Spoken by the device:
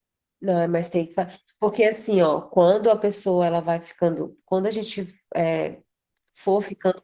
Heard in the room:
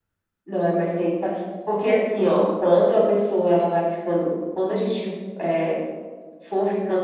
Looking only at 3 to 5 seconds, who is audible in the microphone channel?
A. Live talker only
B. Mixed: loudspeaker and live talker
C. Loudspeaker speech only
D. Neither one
C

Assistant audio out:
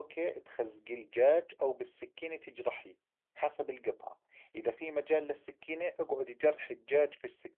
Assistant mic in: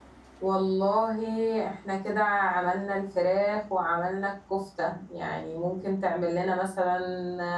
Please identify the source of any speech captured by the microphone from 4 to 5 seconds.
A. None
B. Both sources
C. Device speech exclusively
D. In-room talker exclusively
D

